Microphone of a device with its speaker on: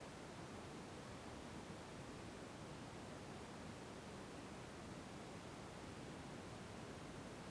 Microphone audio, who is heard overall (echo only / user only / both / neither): neither